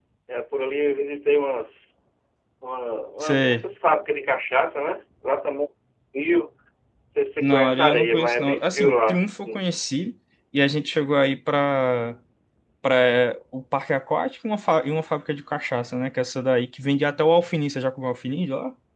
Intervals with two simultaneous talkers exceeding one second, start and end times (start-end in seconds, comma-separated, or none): 7.4-9.2